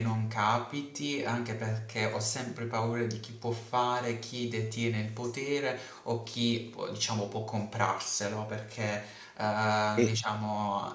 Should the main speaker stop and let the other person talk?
No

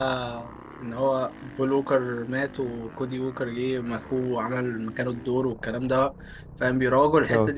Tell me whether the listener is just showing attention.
Yes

